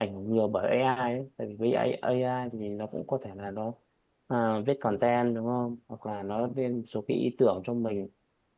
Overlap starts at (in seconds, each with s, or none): none